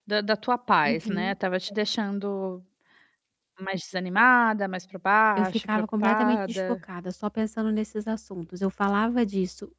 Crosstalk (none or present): present